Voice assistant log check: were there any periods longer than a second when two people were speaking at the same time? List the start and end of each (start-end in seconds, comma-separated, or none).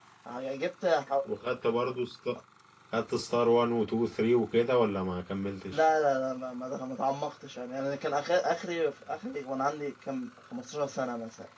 none